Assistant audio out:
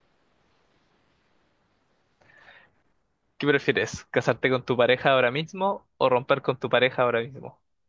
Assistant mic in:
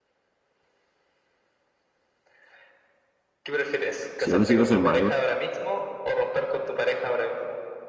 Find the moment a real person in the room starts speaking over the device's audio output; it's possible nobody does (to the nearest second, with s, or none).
4 s